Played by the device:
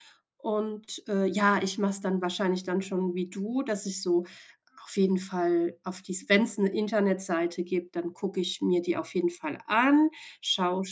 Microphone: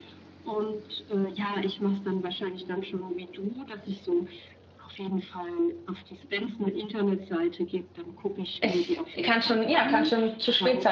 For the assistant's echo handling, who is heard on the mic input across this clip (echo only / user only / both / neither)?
both